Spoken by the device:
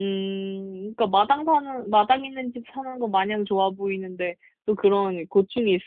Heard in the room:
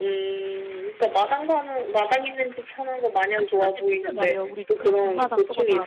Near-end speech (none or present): present